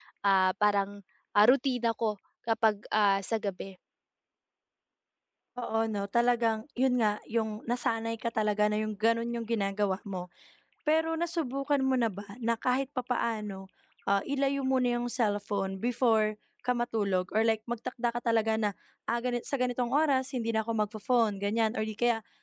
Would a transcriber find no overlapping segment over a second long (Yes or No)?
Yes